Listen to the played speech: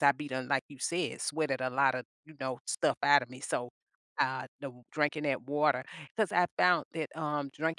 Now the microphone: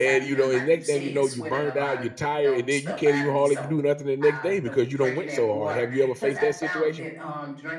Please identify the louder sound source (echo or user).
user